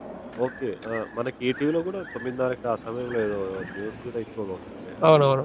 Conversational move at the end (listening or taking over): taking over